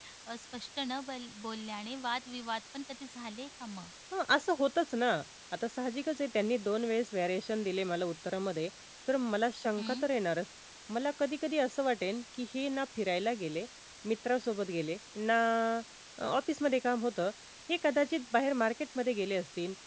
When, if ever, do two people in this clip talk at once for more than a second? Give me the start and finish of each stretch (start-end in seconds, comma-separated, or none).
none